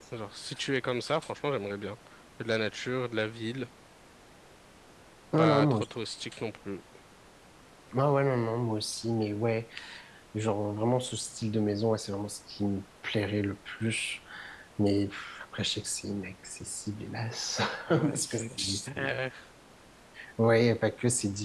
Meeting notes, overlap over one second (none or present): present